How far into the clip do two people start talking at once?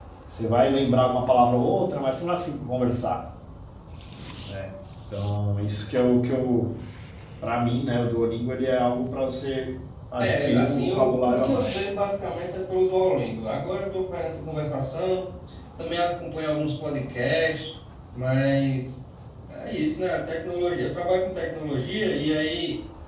10.2 s

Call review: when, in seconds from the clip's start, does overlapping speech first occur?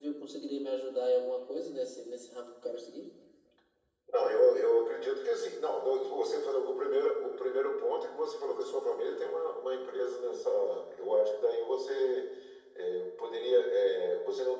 none

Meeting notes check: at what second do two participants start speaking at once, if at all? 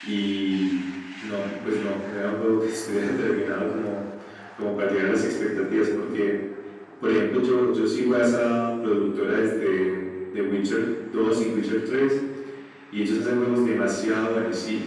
none

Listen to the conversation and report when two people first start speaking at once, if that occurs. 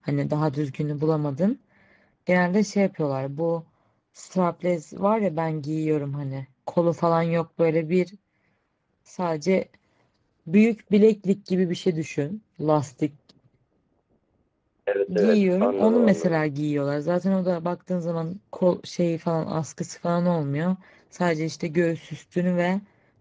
15.2 s

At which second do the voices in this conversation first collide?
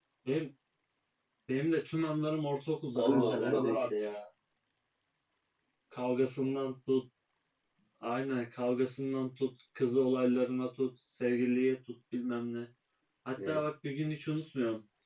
3.0 s

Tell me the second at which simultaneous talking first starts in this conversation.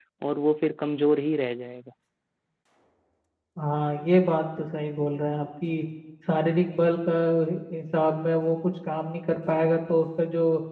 none

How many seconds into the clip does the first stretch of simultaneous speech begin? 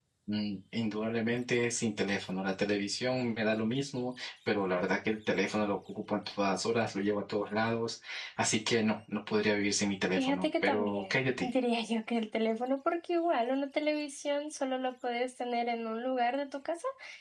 10.2 s

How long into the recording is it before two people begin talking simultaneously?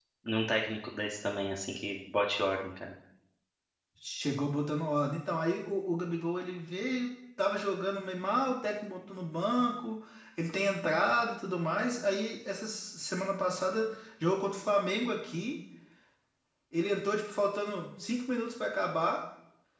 none

